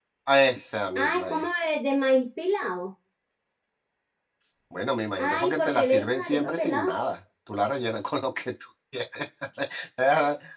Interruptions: present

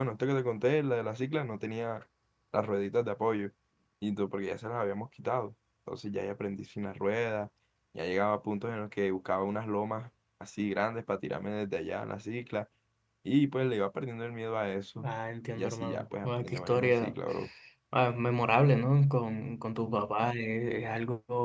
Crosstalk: present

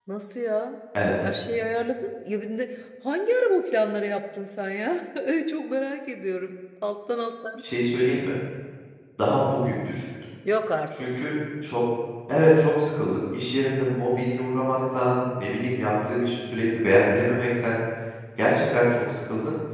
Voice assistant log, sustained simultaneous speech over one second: none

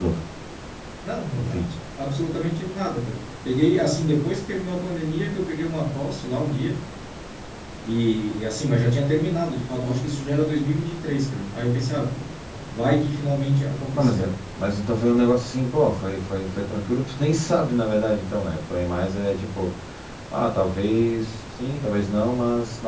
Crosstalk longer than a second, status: none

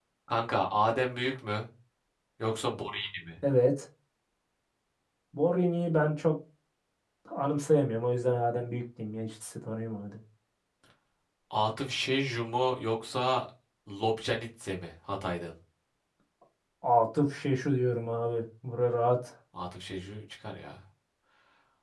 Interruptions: none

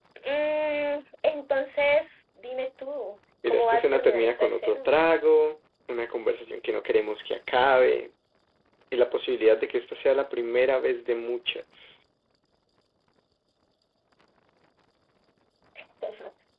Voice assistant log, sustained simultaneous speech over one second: present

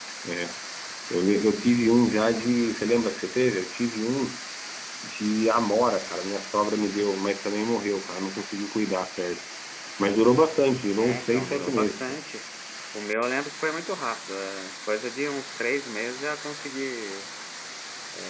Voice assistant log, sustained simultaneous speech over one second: present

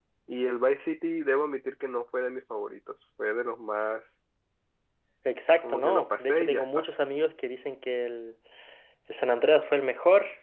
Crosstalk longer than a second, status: present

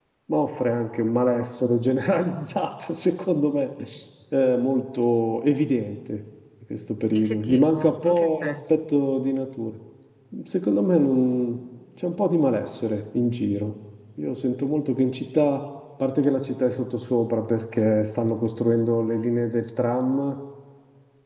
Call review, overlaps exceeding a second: present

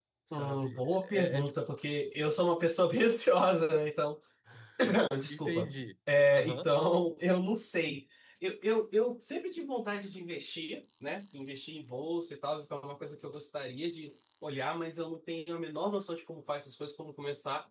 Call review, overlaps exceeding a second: present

